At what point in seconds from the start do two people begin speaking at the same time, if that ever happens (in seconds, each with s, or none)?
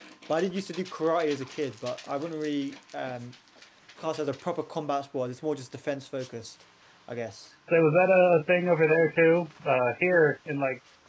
none